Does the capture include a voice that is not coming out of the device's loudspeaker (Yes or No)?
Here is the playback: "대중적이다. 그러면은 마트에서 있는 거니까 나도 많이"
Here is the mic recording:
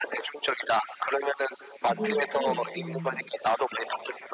Yes